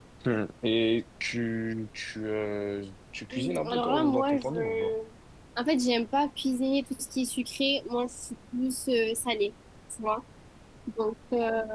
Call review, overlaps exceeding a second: present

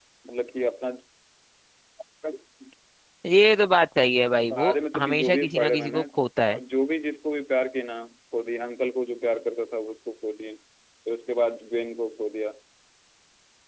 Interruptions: present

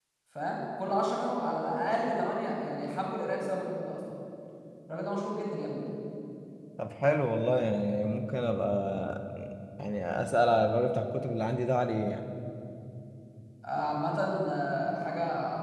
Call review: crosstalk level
none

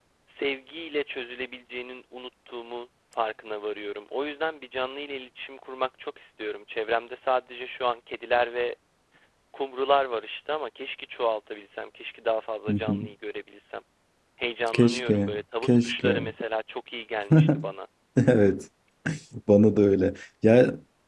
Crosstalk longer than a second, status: present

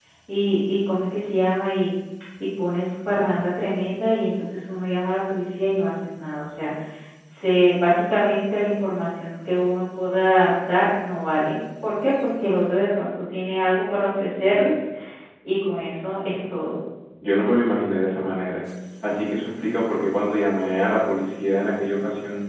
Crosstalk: none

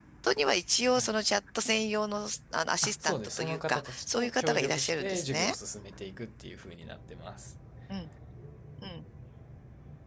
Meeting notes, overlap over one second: present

